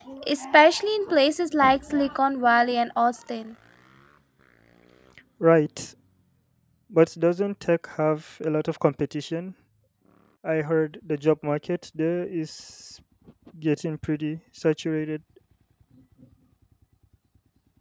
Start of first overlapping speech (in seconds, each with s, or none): none